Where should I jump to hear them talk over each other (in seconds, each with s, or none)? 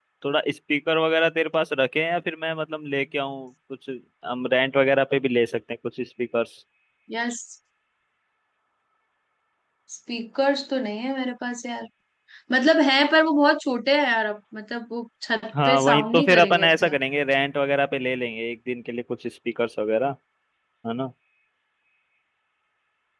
15.5 s